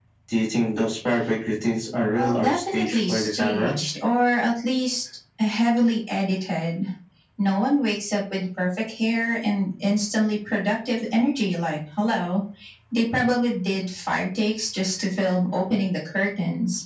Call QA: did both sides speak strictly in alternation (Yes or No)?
No